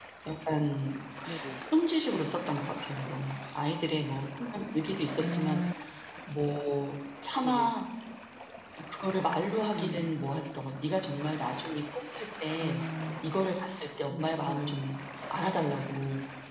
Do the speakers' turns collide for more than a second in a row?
No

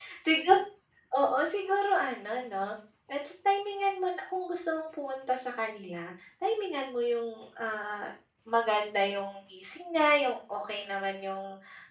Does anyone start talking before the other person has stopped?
No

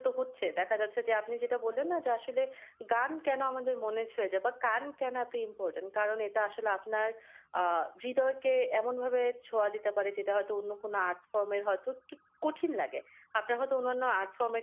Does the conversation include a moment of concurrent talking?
No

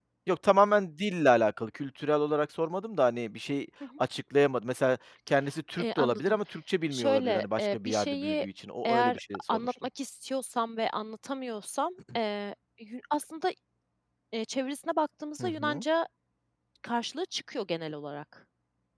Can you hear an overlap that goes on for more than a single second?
Yes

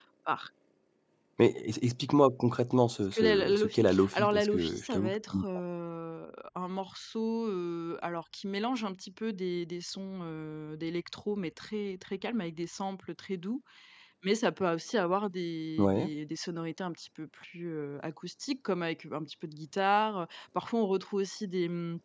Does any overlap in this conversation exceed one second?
Yes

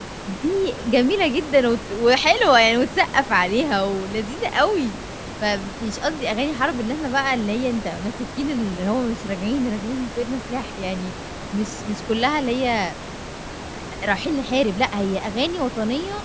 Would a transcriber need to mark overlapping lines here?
No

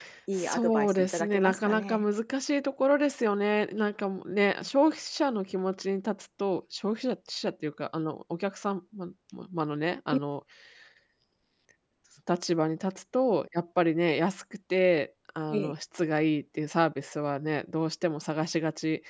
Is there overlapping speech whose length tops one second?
Yes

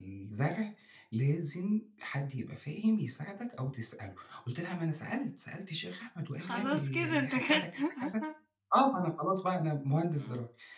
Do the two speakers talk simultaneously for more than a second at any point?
Yes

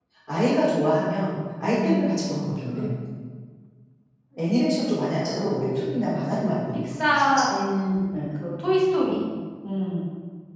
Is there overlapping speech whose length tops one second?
Yes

